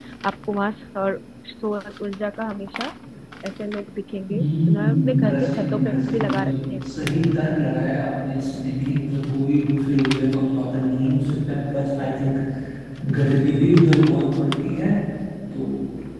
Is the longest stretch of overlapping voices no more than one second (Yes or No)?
No